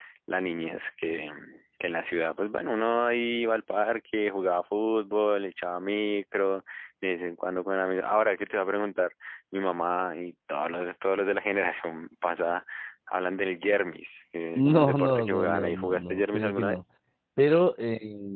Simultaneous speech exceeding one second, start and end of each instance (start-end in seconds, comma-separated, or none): 14.6-16.8